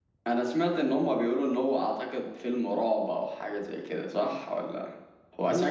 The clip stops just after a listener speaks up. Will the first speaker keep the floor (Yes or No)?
No